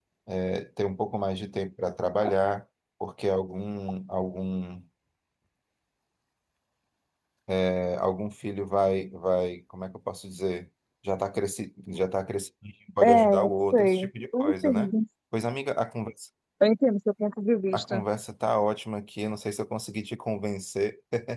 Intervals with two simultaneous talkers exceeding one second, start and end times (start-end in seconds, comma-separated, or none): 13.0-14.9